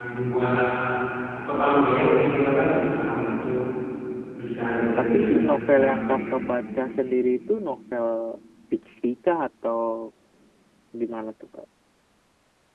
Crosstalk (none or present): present